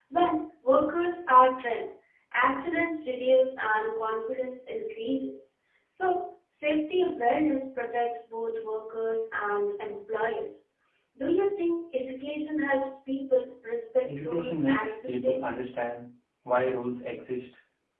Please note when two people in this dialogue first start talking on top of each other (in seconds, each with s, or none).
14.0 s